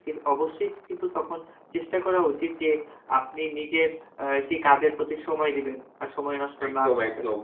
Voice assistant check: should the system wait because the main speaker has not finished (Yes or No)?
No